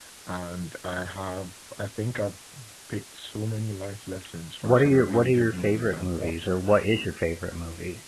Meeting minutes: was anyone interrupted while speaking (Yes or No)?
Yes